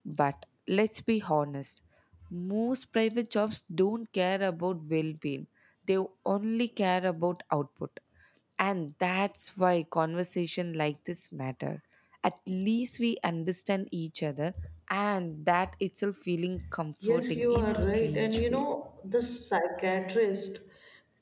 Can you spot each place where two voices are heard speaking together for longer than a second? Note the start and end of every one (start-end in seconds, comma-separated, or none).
17.0-18.6